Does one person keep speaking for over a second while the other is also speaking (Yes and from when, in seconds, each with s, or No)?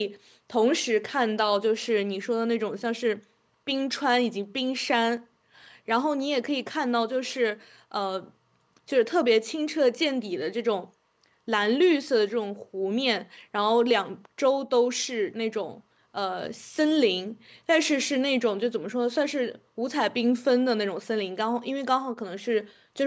No